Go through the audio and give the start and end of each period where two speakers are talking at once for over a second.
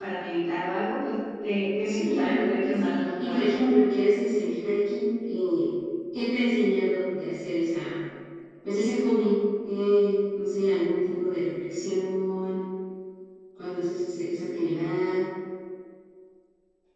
1.8-3.5

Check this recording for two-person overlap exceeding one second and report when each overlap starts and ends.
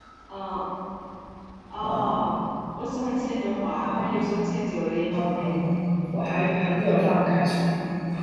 none

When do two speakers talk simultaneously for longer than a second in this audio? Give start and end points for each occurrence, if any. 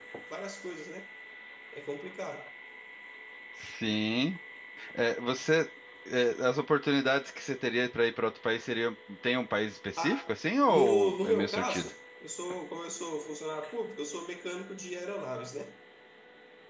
10.7-11.9

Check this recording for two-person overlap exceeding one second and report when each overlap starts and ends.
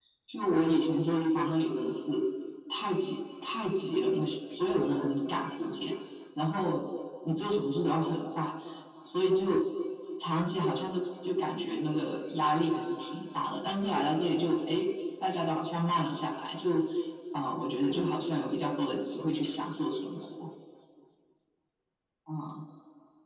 none

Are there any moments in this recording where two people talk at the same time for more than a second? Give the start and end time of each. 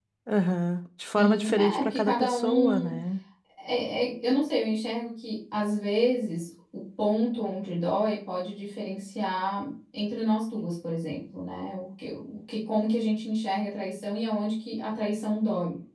1.2-3.0

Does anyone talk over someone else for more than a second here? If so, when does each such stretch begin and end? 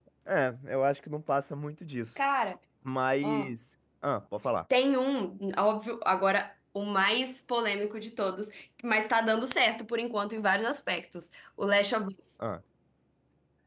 none

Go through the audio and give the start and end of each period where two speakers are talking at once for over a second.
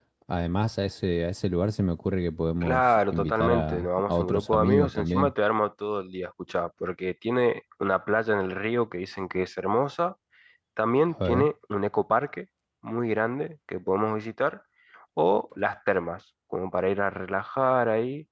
2.6-5.3

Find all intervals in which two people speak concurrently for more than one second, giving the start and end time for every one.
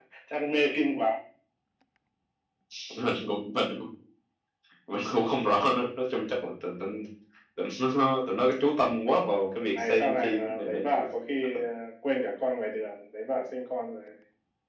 9.8-11.0

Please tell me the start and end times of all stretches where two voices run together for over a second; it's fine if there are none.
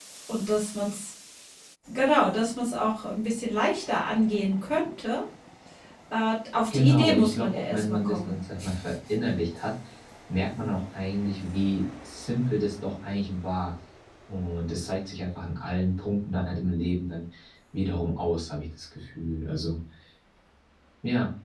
6.7-8.4

